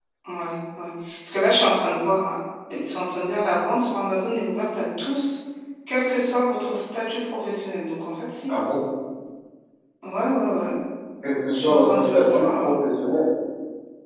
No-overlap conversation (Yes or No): No